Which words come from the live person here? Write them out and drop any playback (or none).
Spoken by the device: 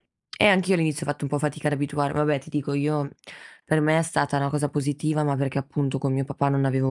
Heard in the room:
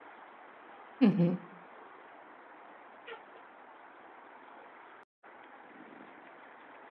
Mh-mh.